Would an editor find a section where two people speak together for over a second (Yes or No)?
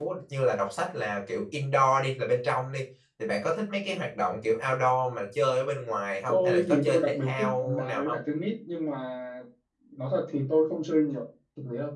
Yes